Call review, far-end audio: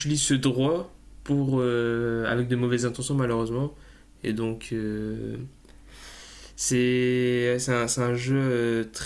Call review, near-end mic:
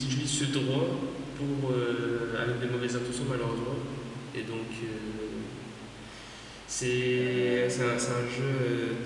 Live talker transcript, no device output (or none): Euh,